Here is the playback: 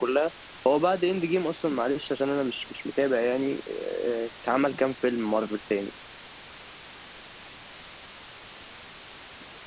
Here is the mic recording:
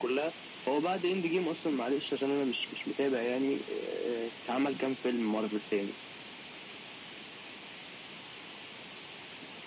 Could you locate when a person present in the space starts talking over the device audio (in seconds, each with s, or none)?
none